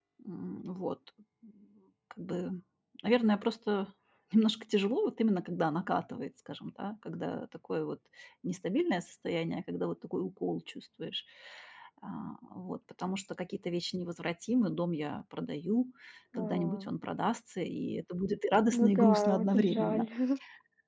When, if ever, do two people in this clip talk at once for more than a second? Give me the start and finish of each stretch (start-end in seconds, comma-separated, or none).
18.7-20.1